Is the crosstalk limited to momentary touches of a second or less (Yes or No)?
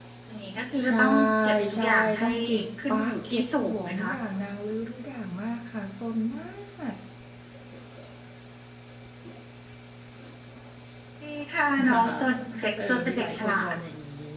No